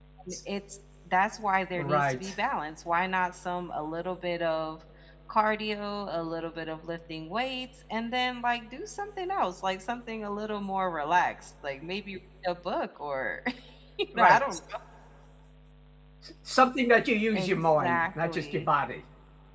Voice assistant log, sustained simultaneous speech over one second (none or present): present